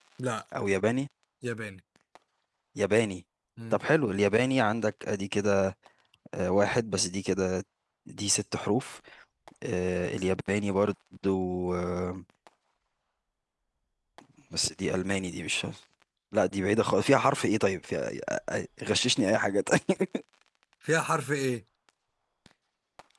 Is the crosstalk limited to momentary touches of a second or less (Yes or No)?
Yes